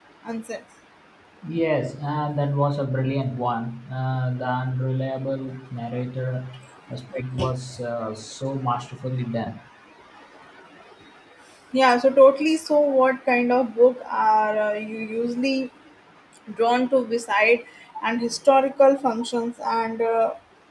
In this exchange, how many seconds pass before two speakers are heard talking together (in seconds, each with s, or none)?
none